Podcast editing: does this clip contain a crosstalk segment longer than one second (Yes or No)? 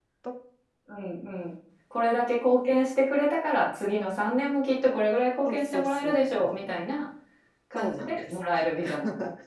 Yes